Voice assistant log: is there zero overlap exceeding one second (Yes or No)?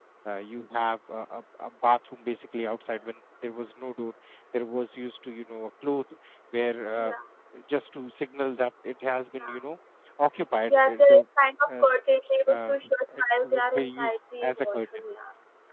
No